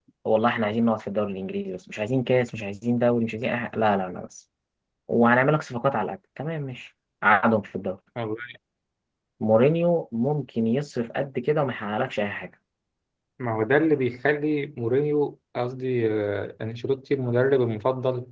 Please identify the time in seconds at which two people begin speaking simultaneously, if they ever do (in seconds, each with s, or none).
none